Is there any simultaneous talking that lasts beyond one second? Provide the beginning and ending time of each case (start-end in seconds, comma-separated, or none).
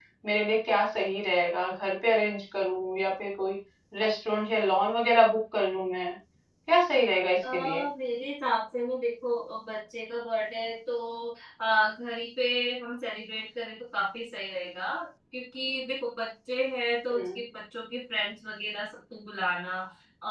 none